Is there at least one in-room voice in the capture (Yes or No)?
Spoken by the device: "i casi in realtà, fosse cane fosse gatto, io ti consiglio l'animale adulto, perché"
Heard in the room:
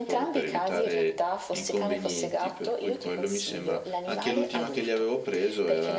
Yes